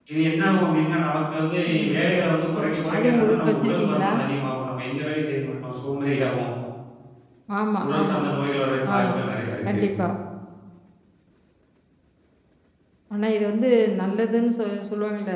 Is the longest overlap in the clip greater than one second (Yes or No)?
Yes